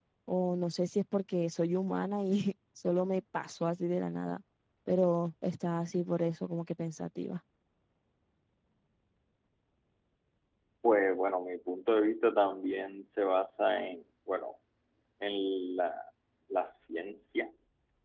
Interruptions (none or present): none